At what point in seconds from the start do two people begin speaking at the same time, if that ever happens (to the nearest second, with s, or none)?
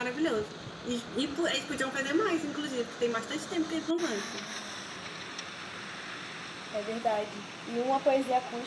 none